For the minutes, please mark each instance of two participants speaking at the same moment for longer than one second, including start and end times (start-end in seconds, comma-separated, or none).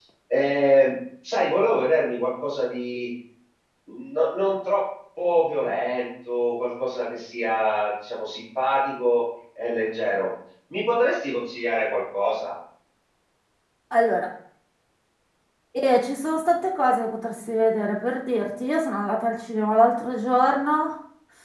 none